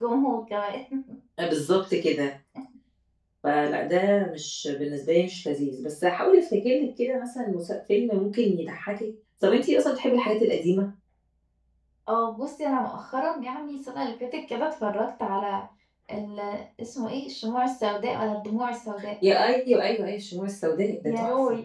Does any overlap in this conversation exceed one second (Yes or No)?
No